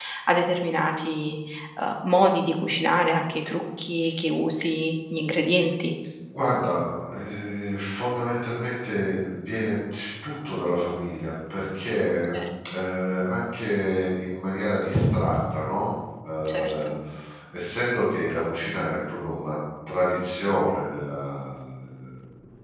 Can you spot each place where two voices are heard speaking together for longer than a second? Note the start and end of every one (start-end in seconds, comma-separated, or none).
none